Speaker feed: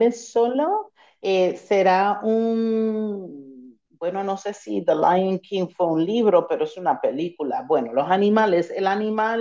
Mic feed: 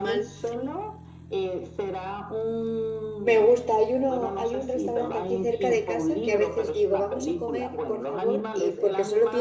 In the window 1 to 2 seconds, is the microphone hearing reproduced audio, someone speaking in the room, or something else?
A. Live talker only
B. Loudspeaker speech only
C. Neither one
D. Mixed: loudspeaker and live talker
B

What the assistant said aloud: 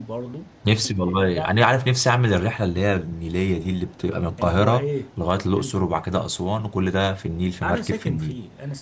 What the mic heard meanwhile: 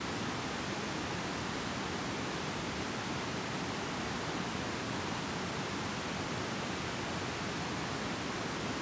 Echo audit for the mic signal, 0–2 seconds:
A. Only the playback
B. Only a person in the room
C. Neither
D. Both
C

